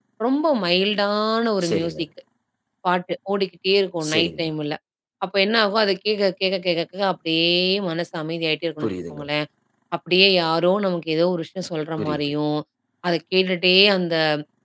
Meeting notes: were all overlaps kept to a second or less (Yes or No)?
Yes